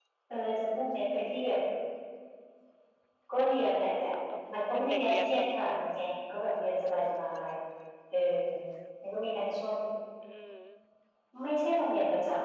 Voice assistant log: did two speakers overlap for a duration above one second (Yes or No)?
Yes